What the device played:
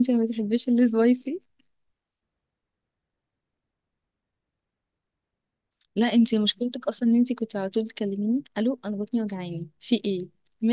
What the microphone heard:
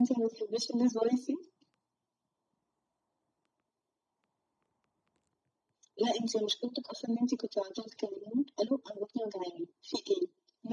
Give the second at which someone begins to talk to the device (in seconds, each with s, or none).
none